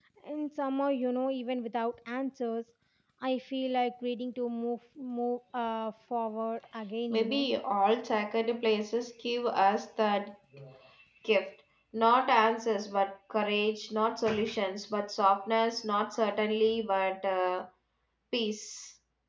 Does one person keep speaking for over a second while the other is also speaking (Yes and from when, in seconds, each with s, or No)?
No